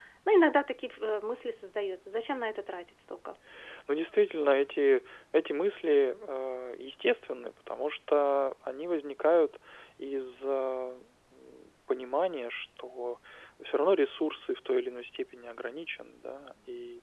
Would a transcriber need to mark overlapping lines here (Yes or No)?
No